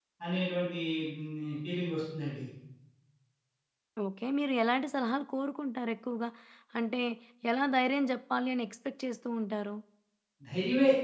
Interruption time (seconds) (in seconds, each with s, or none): none